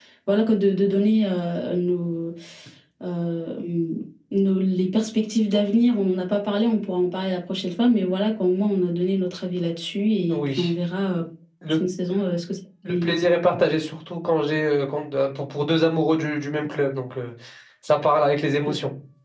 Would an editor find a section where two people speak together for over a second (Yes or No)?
No